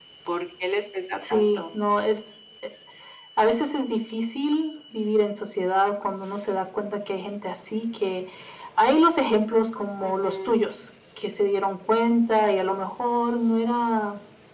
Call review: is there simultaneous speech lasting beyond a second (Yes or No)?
No